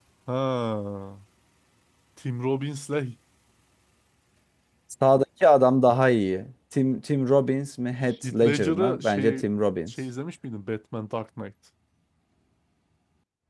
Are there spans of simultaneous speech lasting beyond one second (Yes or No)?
Yes